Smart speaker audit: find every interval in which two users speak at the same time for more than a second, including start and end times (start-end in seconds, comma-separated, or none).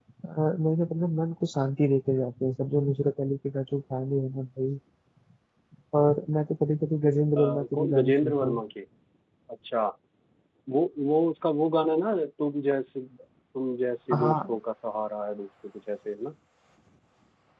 7.4-8.6